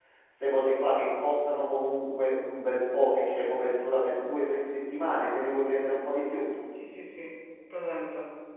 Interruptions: none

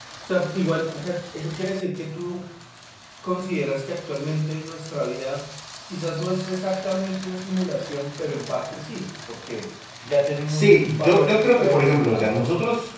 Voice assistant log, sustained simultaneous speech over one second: present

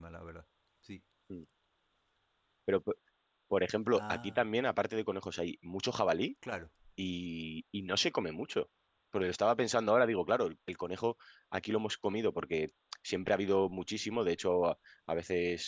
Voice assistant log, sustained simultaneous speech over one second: none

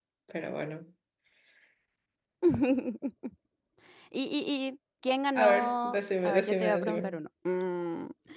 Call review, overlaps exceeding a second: present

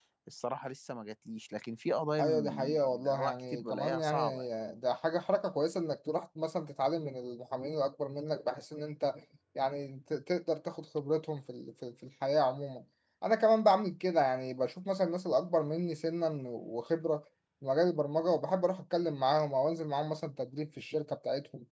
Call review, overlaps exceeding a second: present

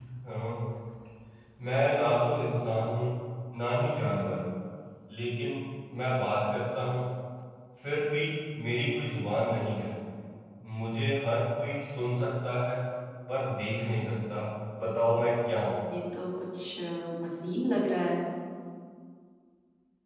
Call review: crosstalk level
none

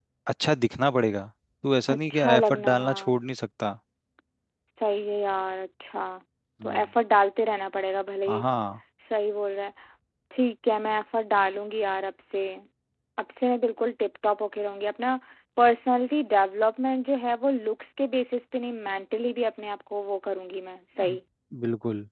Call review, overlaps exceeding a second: present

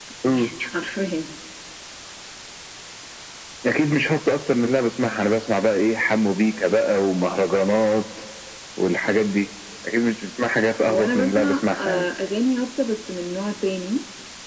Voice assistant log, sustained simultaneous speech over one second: present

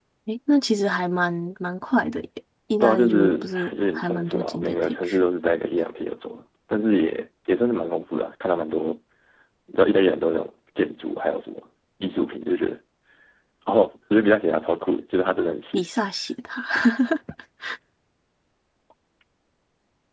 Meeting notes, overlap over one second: present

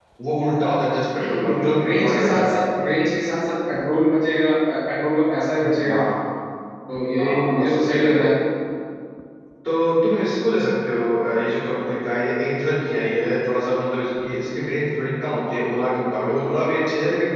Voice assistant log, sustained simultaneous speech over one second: present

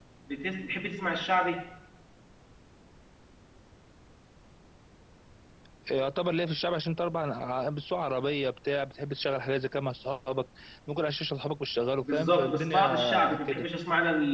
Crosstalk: present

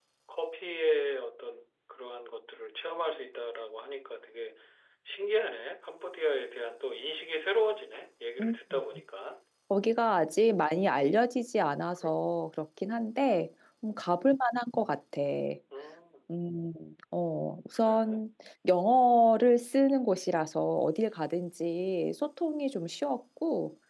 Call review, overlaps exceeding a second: none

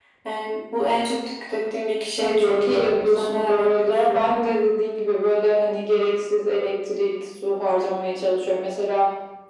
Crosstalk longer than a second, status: present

